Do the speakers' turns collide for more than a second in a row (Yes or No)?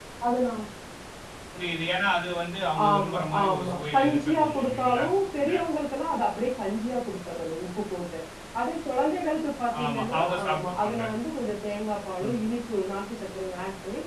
Yes